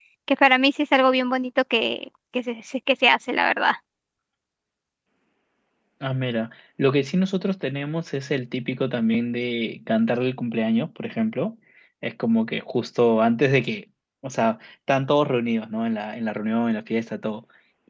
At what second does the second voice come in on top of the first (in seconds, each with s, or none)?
none